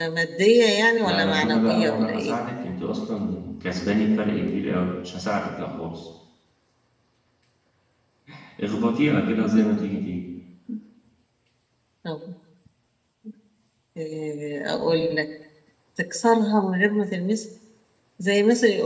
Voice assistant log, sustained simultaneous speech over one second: present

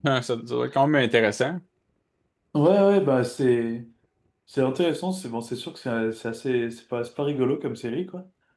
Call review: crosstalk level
none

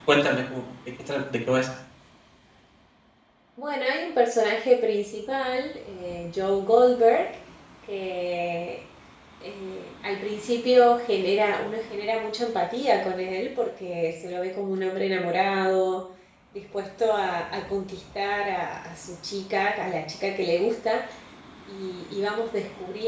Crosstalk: none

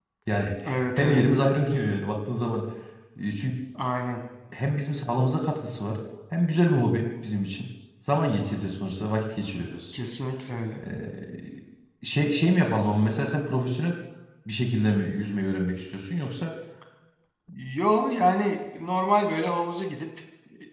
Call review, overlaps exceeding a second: none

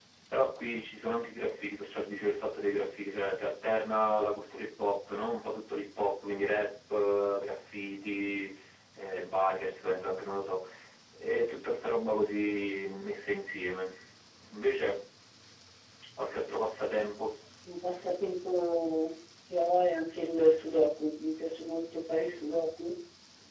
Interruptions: none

